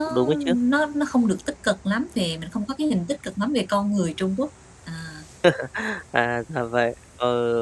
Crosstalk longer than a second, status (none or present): none